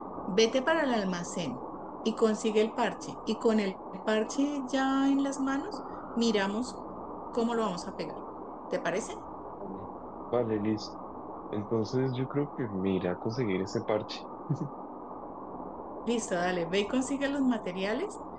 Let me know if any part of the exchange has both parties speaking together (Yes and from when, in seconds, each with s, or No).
No